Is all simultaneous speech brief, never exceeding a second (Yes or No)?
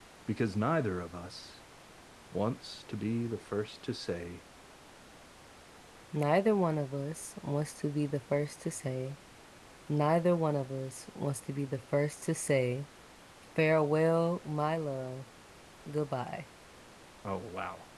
Yes